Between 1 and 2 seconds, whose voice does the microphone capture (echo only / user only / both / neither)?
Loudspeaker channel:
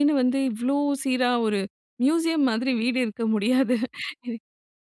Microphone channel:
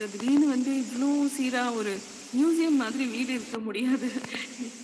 echo only